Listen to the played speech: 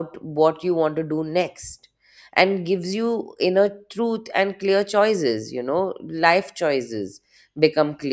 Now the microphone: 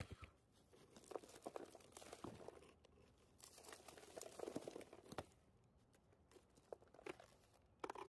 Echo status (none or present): none